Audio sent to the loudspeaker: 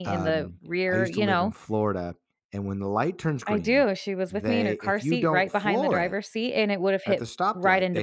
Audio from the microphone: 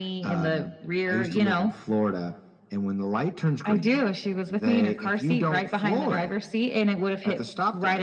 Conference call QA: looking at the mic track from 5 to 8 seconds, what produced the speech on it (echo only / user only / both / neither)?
echo only